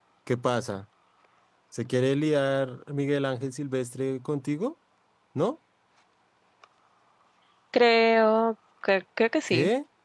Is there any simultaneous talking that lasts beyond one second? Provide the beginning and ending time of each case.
none

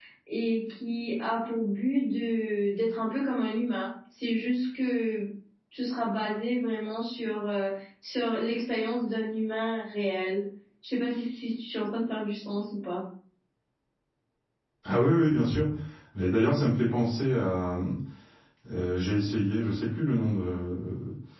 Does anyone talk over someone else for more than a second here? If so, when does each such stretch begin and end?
none

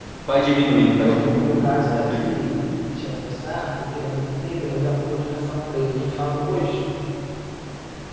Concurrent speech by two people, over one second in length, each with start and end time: 0.8-2.3

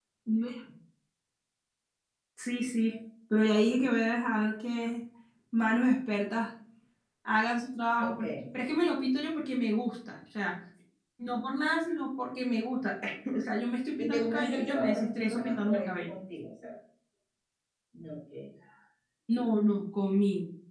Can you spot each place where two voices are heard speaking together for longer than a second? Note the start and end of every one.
14.0-16.1

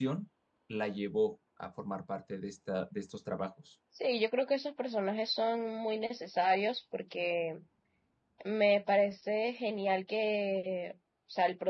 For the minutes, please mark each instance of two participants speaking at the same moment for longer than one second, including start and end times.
none

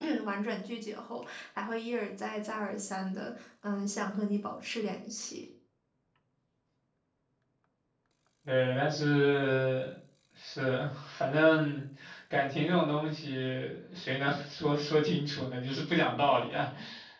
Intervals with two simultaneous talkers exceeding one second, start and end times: none

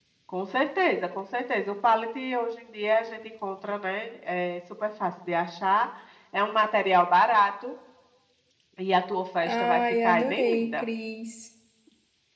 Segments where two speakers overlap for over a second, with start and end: 9.4-10.8

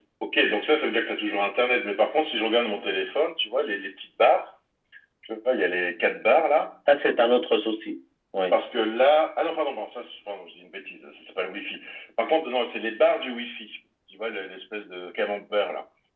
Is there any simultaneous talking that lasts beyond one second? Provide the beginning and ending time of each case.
none

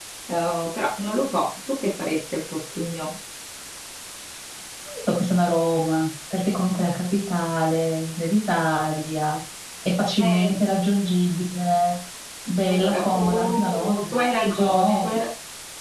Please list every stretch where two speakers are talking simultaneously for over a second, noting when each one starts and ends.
12.7-15.2

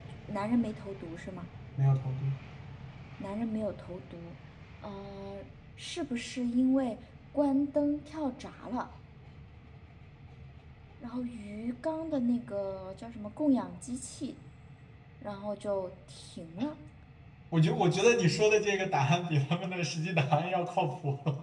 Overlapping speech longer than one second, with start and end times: none

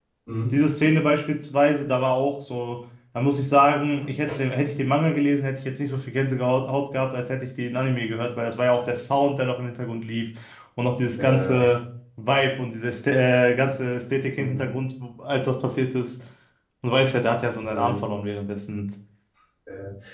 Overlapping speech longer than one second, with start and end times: none

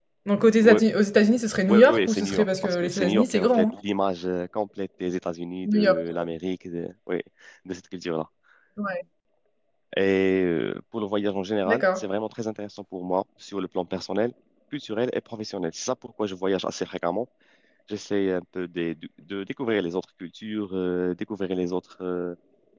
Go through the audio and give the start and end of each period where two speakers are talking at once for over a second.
1.7-3.7

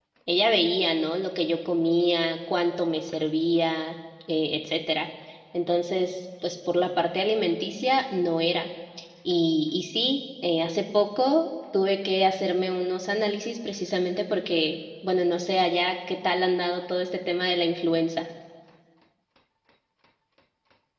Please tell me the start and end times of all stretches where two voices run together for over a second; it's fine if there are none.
none

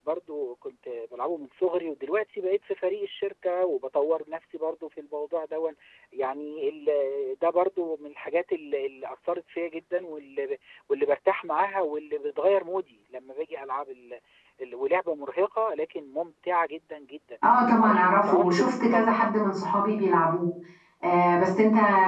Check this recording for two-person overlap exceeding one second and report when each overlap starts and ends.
17.8-19.4

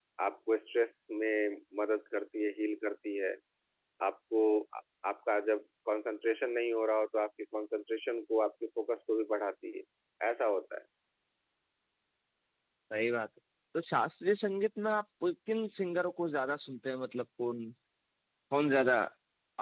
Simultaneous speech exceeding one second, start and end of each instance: none

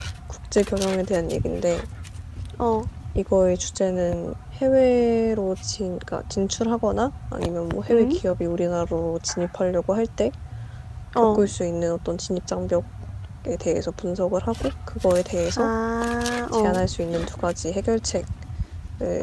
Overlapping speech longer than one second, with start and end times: none

